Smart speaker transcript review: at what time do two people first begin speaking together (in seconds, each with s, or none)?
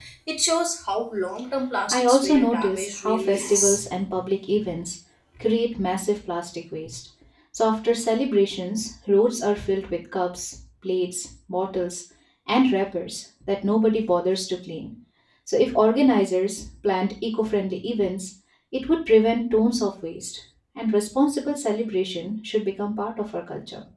1.9 s